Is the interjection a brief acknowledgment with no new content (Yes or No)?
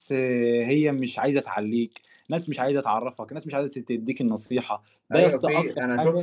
No